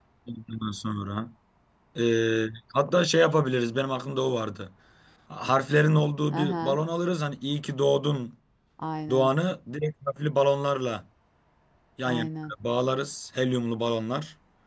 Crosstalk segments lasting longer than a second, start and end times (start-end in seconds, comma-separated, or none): none